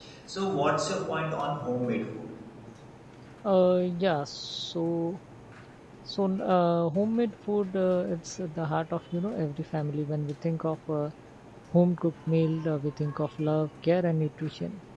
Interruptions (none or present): none